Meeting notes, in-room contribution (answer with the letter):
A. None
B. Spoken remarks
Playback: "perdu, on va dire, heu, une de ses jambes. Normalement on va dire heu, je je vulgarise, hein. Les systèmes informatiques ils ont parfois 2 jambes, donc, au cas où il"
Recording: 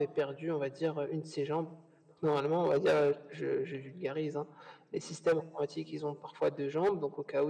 A